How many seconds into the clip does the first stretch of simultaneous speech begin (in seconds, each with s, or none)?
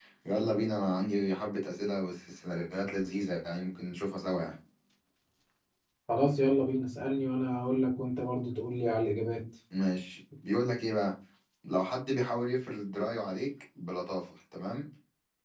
none